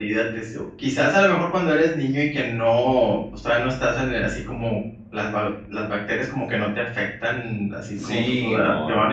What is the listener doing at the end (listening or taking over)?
taking over